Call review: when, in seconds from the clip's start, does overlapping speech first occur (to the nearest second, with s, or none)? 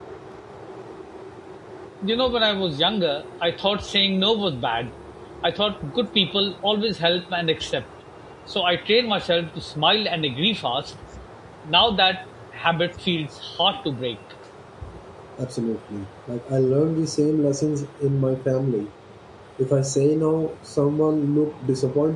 none